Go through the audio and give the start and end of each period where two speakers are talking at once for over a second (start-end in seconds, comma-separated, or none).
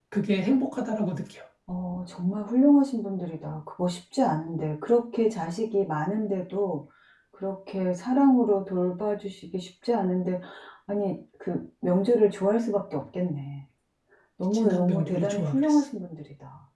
14.5-15.8